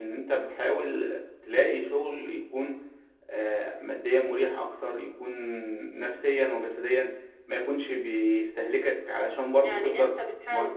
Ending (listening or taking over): taking over